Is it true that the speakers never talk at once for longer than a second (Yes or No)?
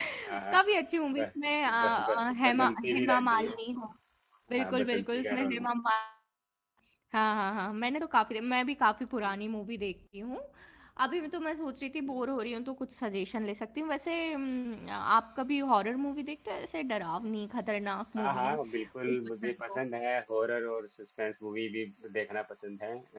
No